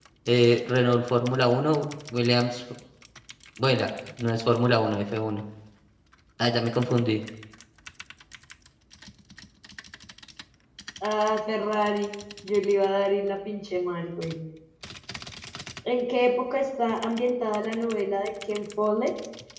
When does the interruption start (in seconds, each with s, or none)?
none